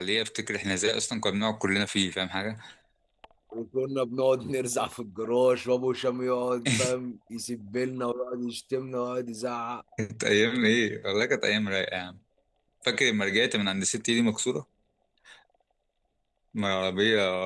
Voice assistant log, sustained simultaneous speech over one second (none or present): none